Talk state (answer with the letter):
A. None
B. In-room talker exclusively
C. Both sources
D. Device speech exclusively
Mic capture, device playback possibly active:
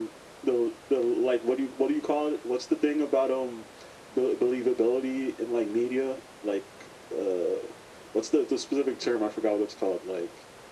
D